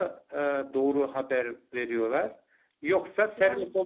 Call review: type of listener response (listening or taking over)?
listening